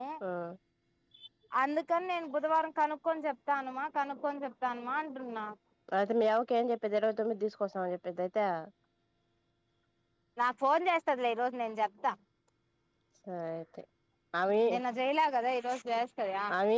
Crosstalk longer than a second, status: none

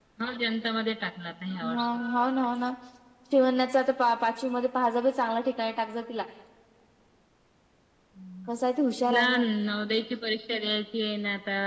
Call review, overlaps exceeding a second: none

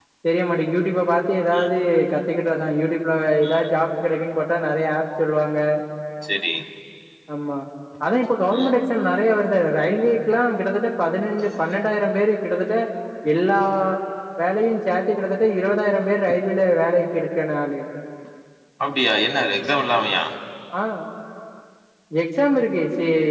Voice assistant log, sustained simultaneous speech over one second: none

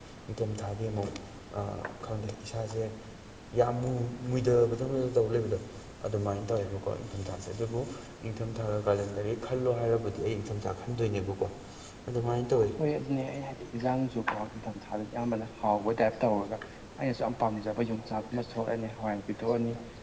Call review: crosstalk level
none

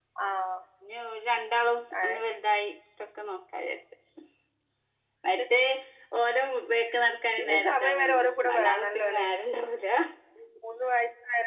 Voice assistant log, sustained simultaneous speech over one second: present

